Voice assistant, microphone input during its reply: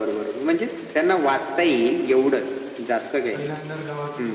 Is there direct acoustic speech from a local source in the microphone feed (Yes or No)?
Yes